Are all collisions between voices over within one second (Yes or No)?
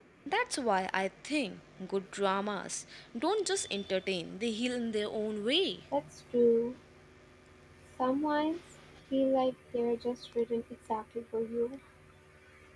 Yes